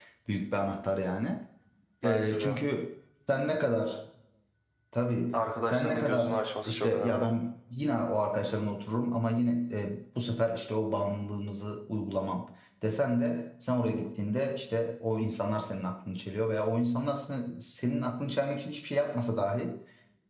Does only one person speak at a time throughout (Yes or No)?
No